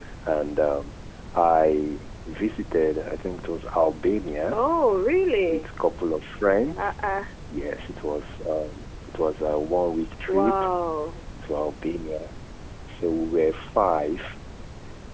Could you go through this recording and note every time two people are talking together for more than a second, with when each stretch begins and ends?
none

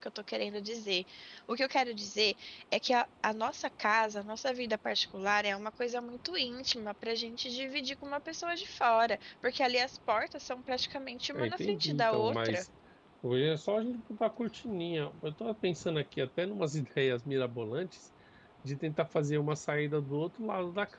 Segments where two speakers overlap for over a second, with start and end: 11.3-12.6

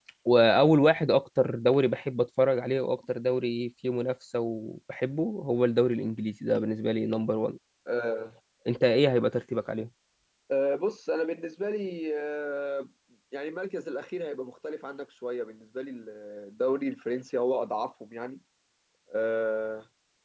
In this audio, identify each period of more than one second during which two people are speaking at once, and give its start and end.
none

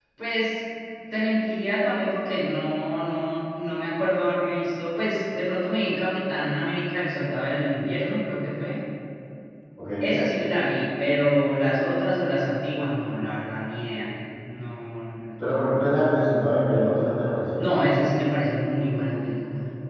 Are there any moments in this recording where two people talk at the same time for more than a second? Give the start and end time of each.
none

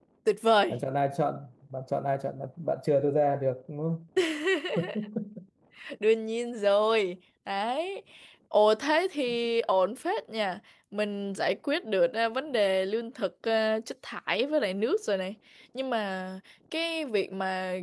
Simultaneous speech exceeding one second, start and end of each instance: none

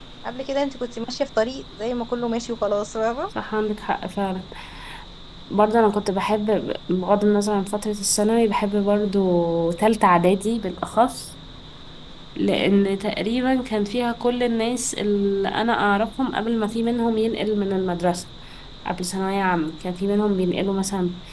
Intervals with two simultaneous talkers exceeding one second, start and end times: none

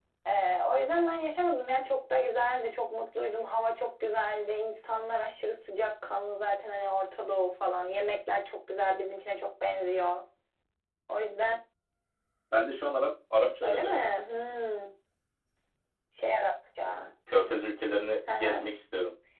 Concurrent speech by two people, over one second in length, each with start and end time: none

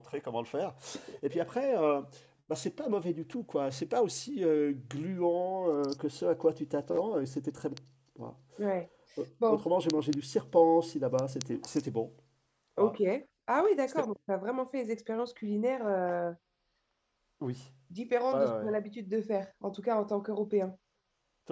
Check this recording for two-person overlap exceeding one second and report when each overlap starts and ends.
none

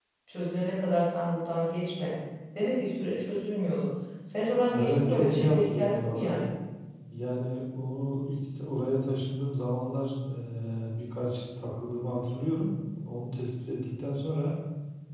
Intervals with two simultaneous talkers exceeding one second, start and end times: 4.7-6.5

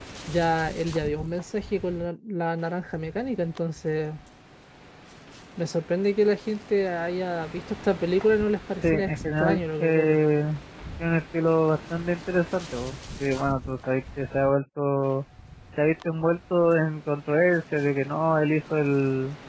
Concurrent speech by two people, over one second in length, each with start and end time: 8.8-10.2

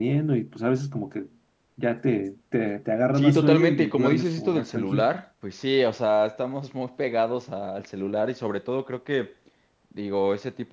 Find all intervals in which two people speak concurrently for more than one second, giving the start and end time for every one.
3.2-5.1

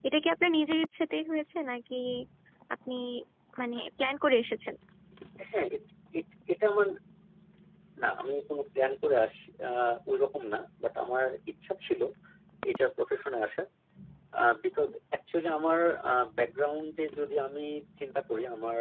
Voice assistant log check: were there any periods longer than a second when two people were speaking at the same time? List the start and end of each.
none

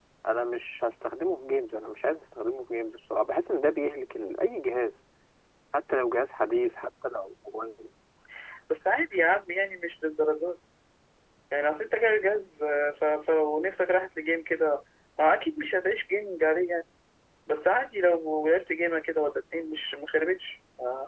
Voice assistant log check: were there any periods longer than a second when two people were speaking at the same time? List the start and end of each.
none

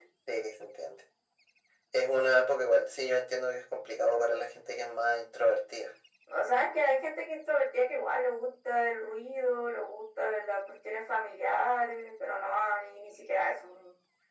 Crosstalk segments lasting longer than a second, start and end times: none

